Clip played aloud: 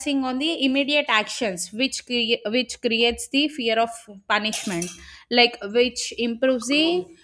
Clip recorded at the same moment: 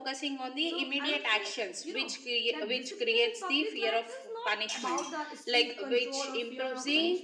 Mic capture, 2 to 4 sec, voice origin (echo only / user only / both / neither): both